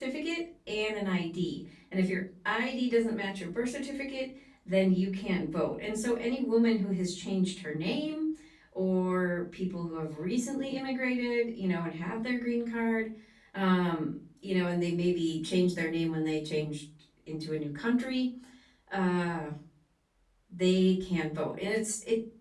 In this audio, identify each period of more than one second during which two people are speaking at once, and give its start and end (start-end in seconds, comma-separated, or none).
none